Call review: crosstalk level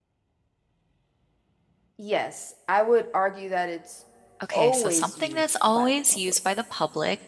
present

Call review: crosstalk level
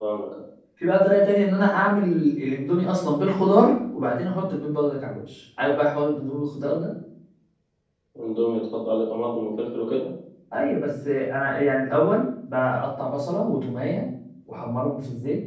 none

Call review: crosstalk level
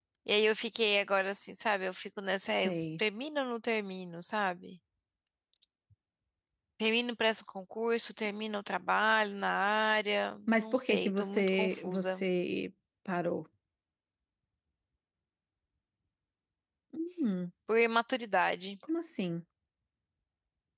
present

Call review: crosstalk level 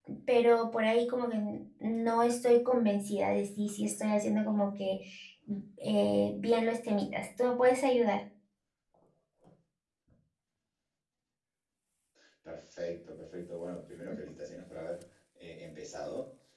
none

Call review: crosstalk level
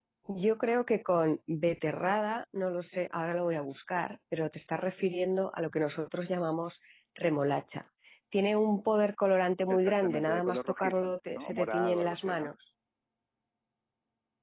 present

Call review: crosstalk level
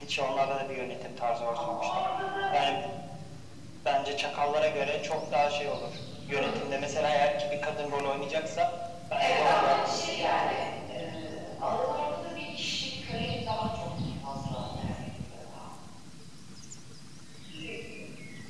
present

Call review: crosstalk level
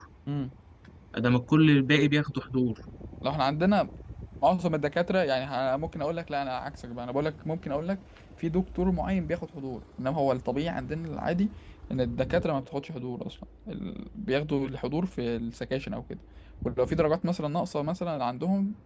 none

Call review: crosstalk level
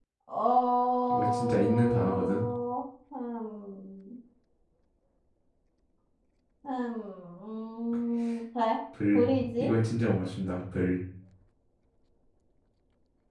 present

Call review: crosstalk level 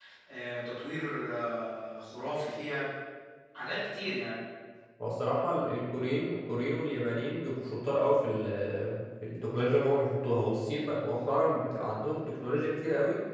none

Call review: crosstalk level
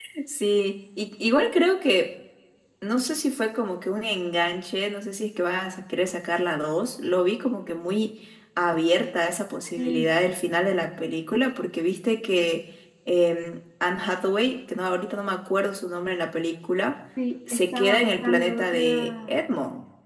present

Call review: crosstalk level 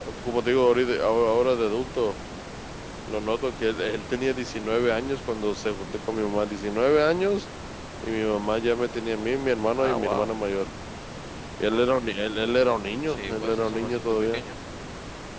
present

